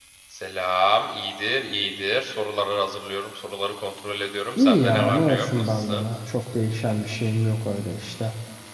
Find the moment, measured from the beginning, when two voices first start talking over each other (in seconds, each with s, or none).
4.6 s